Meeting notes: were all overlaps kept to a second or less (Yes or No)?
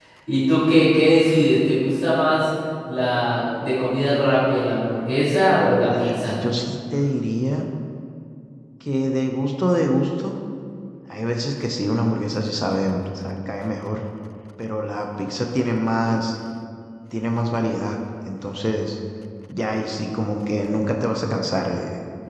Yes